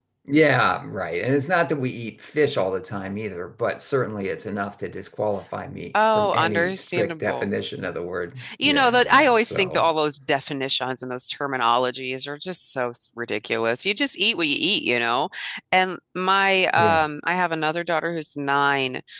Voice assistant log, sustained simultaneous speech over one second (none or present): present